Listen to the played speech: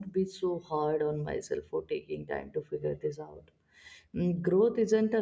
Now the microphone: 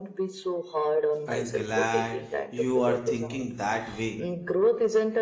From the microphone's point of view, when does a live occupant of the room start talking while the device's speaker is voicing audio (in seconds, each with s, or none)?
1.2 s